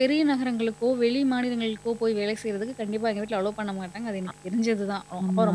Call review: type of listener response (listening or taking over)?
taking over